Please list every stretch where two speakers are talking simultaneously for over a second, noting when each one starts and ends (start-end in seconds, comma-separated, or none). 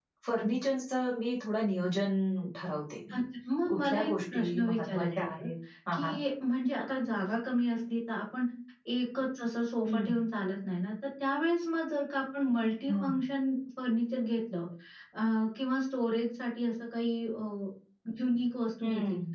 3.7-5.5